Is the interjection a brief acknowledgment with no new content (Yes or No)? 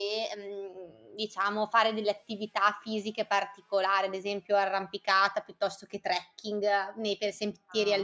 No